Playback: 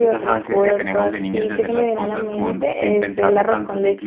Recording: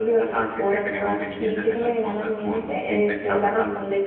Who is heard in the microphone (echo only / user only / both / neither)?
echo only